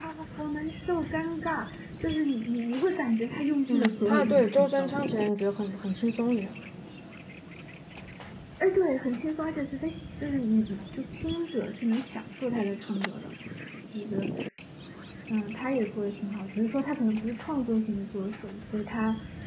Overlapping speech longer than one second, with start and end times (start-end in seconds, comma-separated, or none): 3.7-5.1